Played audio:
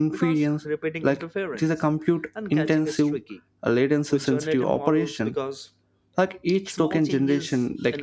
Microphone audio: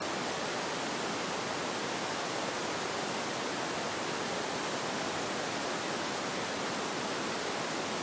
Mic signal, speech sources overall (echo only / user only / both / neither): neither